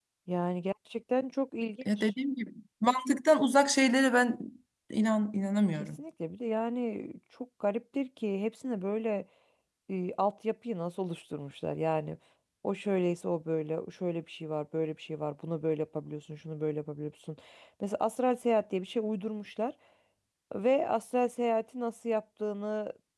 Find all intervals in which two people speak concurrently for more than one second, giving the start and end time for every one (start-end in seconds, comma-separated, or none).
none